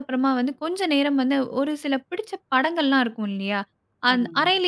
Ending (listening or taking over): listening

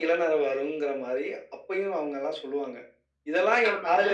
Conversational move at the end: listening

